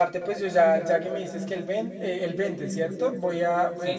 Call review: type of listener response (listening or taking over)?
listening